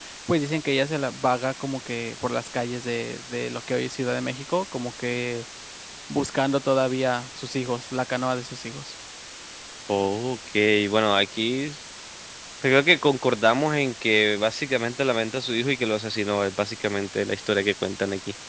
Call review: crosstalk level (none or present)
none